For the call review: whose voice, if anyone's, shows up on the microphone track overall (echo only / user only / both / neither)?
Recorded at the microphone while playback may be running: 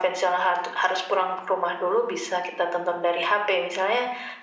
echo only